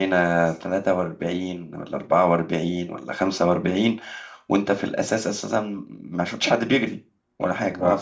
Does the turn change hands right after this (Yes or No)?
No